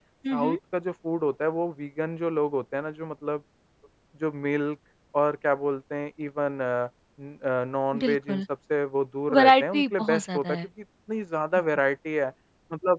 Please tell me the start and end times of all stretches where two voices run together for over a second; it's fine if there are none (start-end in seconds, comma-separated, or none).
9.3-10.6